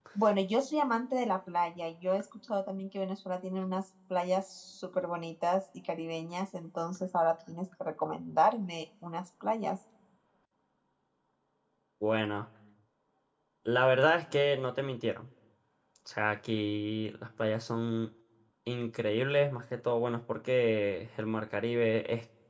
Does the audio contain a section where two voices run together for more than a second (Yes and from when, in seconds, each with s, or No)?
No